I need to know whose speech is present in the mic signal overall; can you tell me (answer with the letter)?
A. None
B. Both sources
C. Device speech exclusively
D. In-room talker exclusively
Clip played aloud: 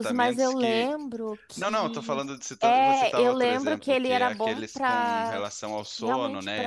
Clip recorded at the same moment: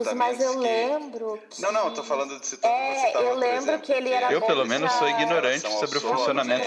B